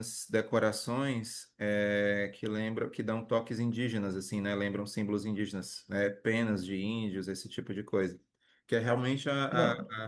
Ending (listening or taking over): listening